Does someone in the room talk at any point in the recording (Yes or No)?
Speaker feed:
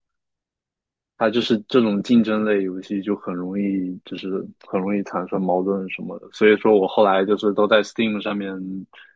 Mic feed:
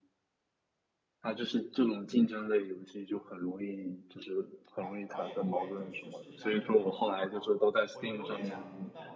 Yes